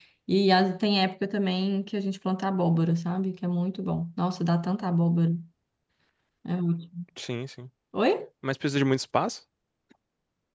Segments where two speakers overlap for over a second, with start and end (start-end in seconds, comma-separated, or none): none